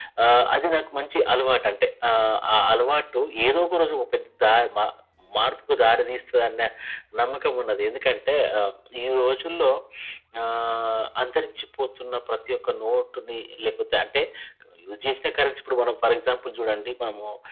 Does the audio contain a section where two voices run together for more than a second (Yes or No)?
No